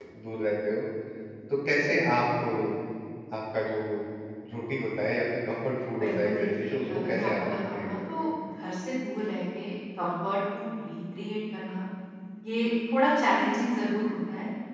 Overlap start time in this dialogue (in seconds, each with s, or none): 6.0 s